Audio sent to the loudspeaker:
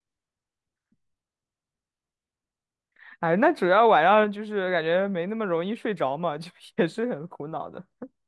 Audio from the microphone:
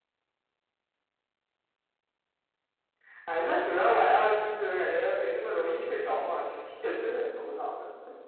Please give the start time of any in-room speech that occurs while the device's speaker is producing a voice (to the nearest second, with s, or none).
none